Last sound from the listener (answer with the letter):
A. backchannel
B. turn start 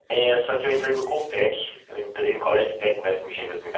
A